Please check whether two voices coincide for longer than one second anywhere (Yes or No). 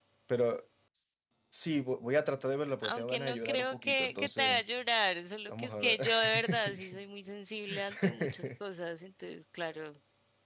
Yes